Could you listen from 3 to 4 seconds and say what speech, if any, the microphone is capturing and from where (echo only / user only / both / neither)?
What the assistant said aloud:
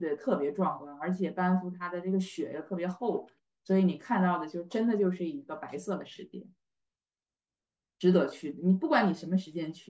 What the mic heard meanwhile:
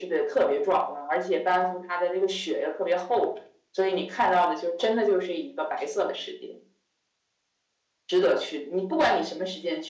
echo only